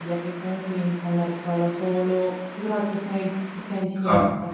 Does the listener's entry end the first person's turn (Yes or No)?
Yes